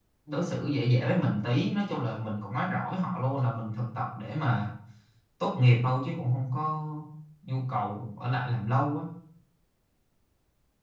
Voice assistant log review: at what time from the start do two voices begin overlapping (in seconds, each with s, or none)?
none